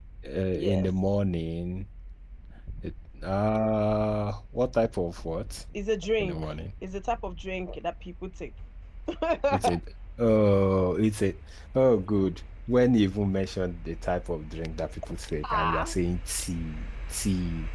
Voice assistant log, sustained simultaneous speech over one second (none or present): none